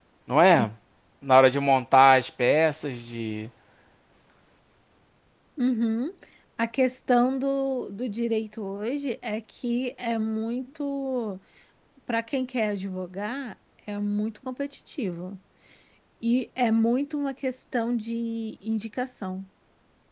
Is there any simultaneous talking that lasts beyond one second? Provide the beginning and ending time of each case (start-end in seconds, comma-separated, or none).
none